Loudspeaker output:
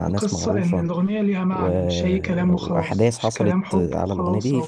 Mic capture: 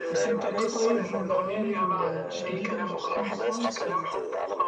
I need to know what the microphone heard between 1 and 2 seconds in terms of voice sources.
both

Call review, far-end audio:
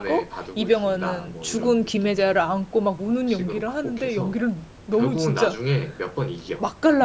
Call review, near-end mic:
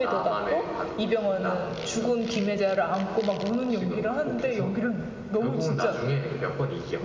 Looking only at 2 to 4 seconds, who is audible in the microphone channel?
echo only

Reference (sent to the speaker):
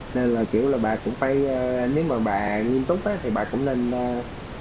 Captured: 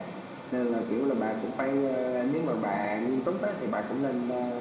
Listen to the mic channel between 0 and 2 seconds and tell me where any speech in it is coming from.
echo only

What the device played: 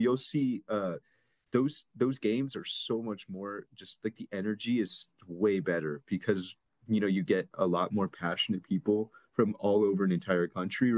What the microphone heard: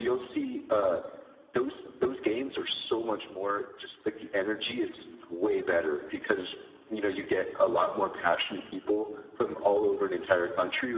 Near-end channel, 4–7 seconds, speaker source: echo only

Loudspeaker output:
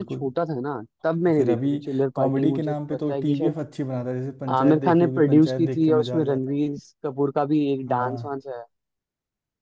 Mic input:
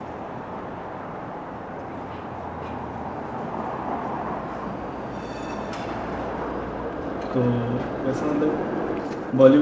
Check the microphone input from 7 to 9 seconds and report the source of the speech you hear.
user only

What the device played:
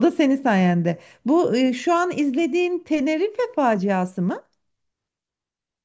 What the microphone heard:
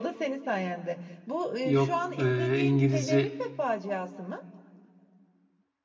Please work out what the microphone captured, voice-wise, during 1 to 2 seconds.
both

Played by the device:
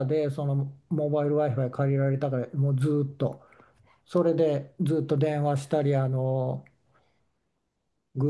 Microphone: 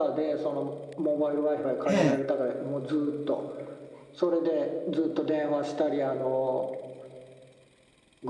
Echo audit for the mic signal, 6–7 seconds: echo only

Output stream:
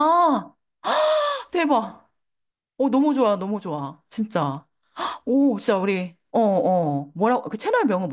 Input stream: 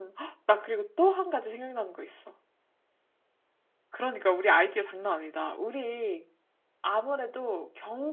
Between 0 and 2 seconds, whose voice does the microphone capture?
user only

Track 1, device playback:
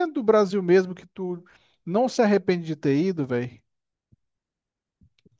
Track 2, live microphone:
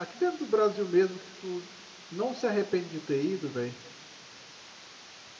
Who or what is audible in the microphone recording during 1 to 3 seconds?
echo only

